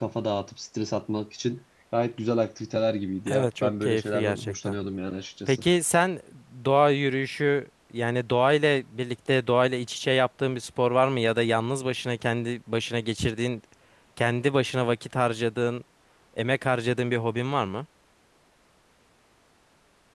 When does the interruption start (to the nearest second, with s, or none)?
3 s